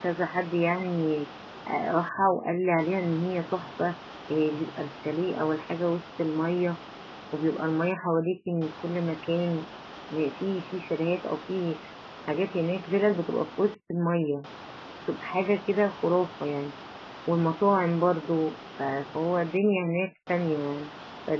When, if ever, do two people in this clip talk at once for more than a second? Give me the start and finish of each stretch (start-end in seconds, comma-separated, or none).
none